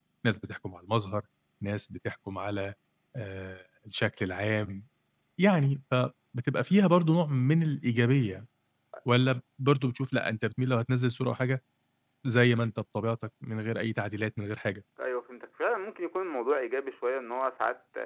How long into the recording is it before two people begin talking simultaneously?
none

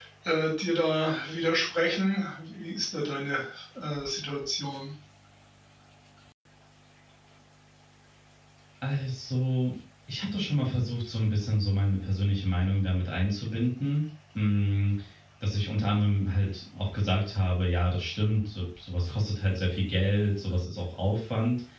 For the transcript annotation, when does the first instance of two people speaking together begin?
none

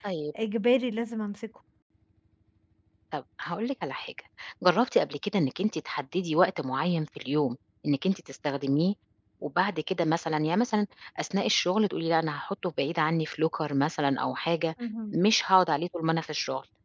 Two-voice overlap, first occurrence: none

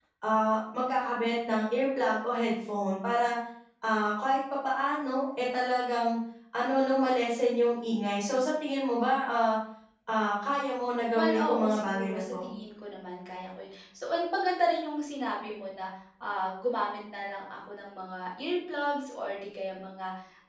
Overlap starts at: 11.1 s

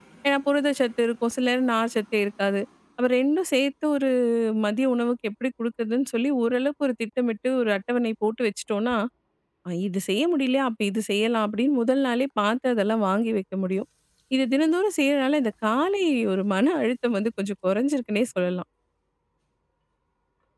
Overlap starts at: none

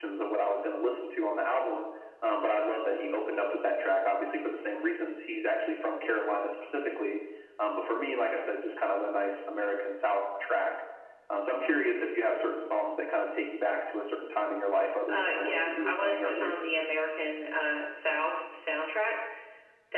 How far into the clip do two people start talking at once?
15.1 s

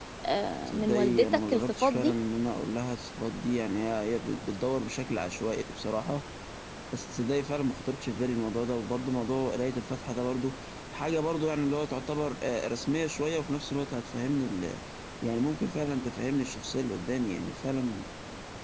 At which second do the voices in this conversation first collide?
0.7 s

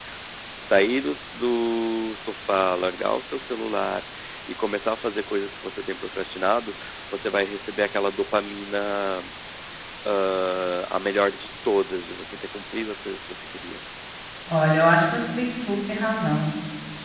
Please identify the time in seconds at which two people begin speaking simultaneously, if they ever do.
none

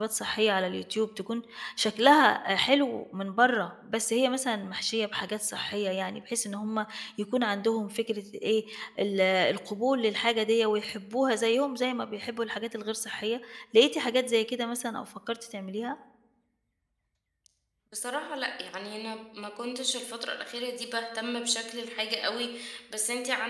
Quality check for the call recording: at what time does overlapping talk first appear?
none

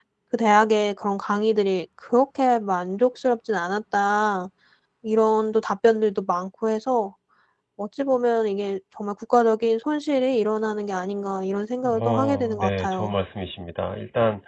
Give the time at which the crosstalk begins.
11.8 s

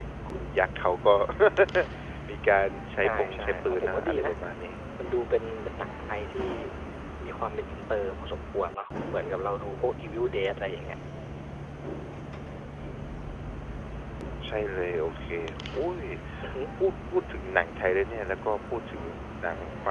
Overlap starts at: 3.0 s

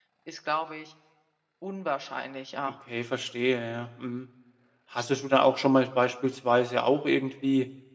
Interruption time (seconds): none

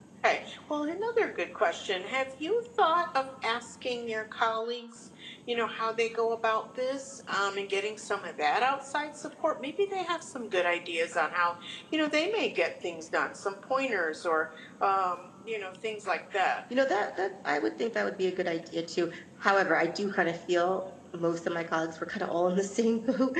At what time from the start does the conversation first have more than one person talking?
none

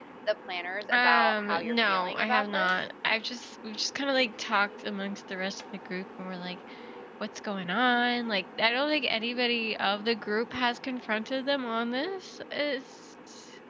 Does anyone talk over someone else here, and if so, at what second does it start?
0.9 s

